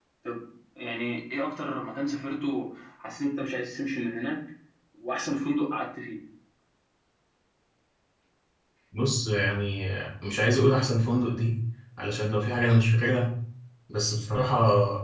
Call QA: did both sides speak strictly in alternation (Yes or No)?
Yes